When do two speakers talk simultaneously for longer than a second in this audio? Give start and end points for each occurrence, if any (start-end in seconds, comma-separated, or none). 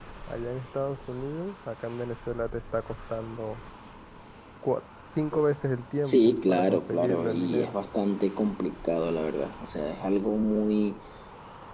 6.0-7.8